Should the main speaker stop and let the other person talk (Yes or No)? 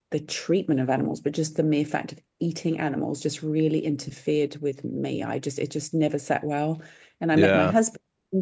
No